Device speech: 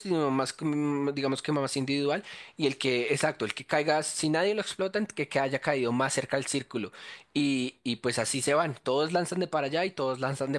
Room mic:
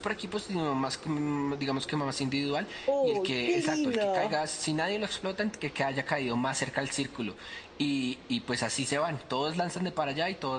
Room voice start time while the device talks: 2.9 s

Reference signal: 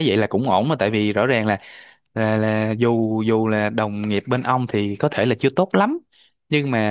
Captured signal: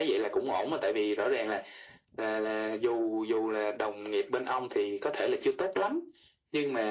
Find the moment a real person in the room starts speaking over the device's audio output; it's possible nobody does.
none

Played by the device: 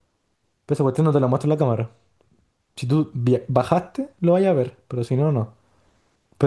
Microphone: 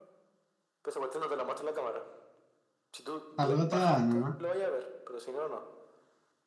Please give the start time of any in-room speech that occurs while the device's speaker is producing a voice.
3.4 s

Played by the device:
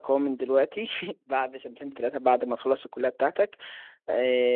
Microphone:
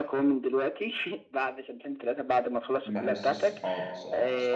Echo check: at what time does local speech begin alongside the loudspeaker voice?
2.9 s

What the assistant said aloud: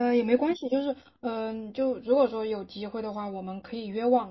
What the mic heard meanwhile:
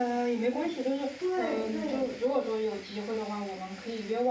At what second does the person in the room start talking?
1.2 s

